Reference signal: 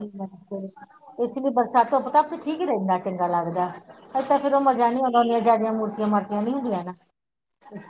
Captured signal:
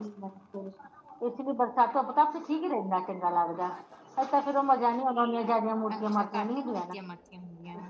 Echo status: present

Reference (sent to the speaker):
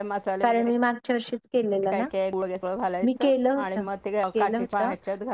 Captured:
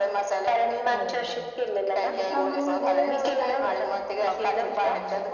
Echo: present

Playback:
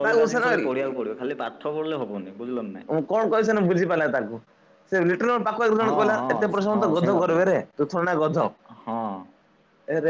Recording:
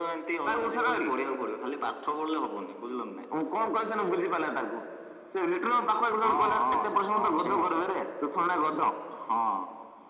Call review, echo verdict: present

